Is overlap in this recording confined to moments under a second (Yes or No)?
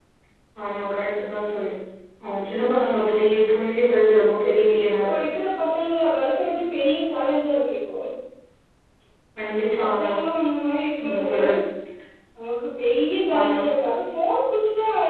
Yes